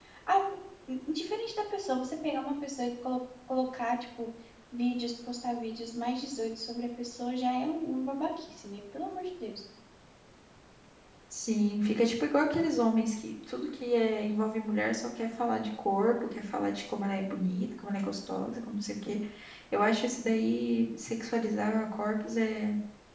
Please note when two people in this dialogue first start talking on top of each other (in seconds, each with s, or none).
none